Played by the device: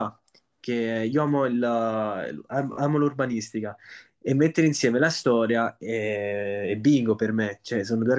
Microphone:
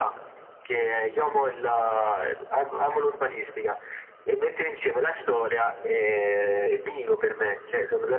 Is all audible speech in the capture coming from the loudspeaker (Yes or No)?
Yes